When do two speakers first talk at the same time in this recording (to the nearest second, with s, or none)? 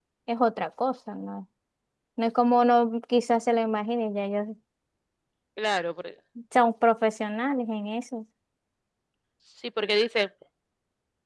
none